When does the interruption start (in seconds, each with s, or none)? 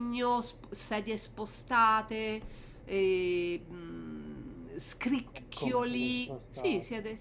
5.6 s